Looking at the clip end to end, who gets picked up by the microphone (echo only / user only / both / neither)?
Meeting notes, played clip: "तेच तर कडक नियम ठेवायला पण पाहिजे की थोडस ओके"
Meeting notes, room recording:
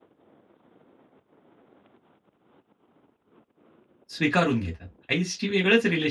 user only